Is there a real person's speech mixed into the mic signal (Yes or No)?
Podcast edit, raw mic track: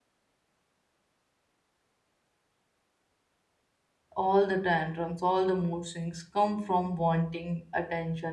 Yes